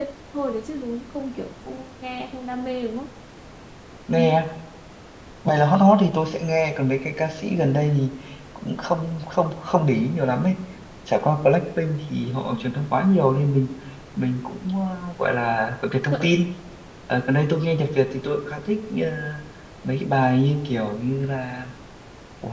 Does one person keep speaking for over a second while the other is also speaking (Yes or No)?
No